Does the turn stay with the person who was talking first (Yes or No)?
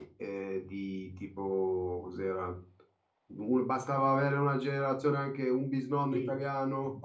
No